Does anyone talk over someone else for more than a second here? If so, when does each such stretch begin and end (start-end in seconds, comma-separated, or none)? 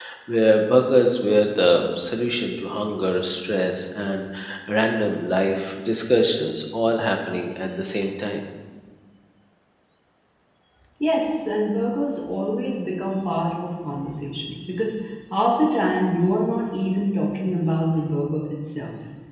none